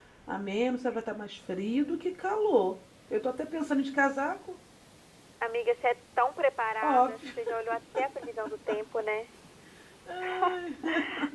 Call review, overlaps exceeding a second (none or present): none